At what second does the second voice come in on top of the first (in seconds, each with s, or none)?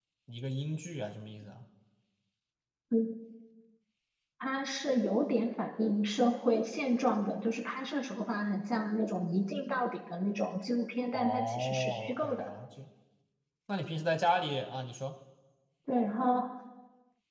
11.1 s